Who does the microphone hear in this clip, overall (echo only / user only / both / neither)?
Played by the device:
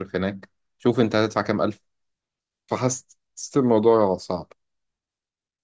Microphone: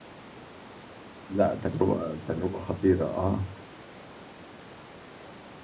user only